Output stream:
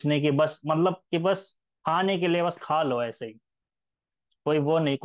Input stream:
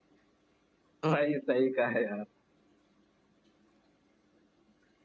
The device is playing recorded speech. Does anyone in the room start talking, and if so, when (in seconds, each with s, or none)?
1.0 s